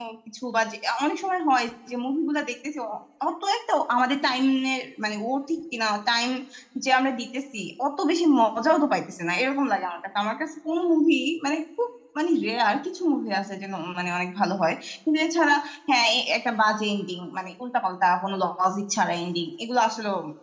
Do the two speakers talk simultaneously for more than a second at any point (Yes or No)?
No